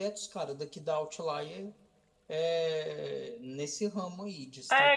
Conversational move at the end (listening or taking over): taking over